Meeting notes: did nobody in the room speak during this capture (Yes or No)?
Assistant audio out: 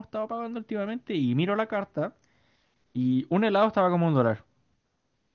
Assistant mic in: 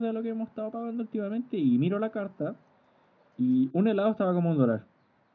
Yes